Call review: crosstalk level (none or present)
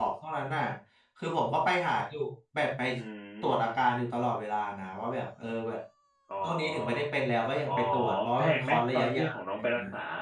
present